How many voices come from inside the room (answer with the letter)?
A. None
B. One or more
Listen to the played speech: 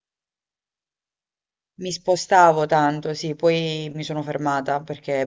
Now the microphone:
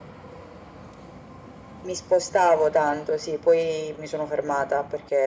A